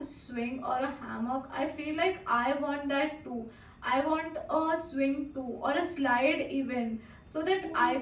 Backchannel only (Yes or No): Yes